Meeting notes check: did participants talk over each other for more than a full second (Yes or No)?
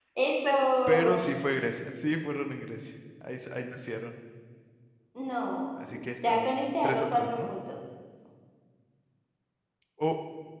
Yes